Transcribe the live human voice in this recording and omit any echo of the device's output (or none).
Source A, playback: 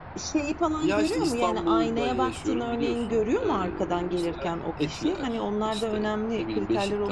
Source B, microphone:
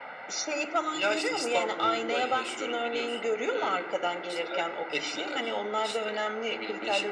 none